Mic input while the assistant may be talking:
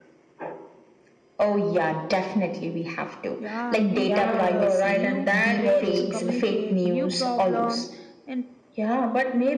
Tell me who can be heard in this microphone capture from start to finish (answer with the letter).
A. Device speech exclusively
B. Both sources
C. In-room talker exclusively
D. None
B